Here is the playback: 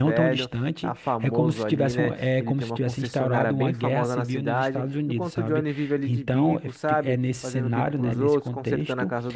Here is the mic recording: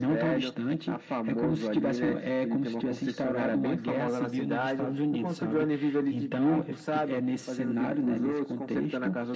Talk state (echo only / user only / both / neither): echo only